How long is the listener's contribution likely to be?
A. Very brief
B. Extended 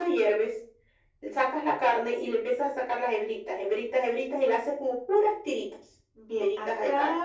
B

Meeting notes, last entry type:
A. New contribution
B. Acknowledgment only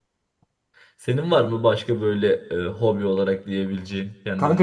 A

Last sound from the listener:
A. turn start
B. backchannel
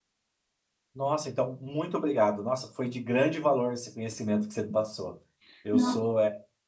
B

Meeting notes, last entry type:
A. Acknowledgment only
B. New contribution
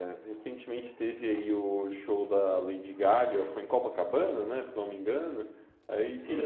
A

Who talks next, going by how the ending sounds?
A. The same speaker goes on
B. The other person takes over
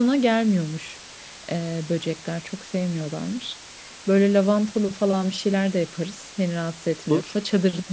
A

